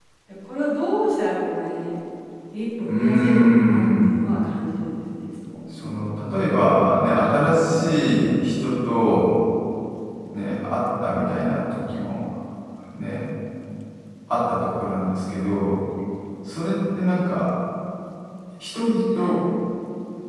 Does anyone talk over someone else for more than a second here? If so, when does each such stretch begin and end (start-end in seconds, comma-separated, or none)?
2.8-4.2